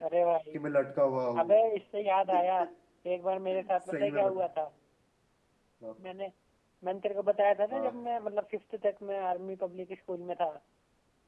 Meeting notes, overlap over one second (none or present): none